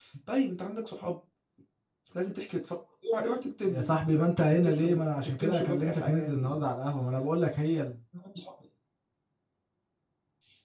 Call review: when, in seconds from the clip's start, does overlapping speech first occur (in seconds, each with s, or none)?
3.6 s